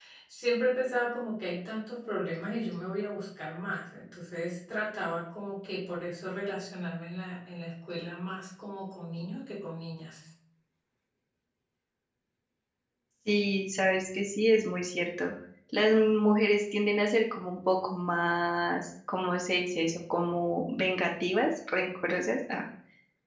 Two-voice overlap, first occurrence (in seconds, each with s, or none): none